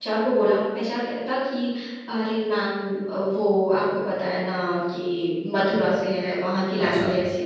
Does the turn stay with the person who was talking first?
Yes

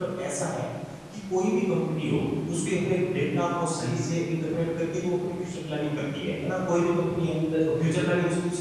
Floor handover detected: No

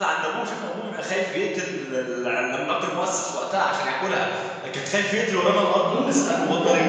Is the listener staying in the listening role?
No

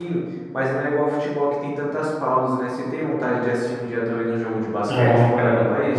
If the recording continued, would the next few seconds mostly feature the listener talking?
Yes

